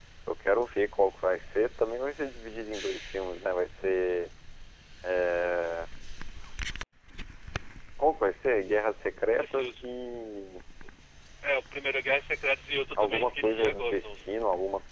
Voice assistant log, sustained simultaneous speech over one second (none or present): present